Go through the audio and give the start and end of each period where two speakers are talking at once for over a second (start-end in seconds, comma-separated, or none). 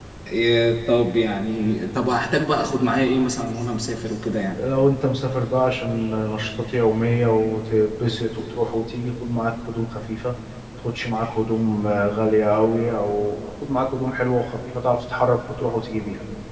none